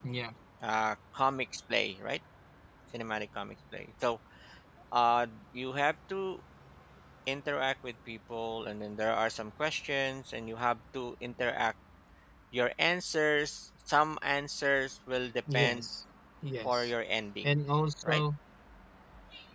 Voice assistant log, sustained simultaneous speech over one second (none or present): none